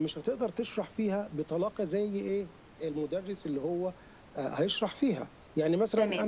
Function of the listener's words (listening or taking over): taking over